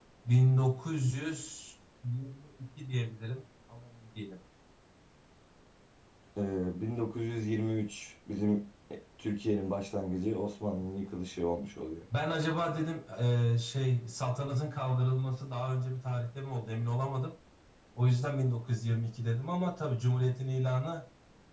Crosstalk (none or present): none